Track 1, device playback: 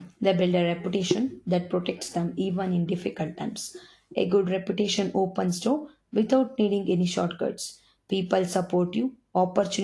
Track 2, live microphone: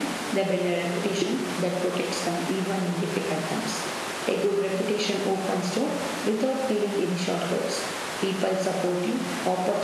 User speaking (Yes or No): No